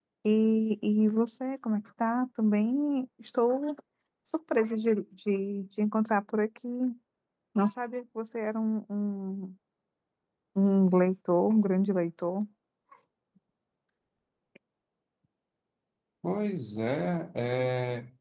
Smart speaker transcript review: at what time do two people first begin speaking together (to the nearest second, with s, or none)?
none